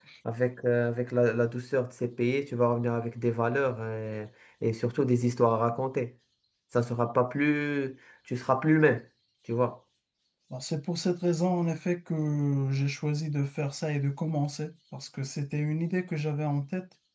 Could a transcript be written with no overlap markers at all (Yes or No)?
Yes